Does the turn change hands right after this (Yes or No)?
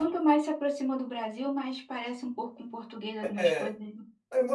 Yes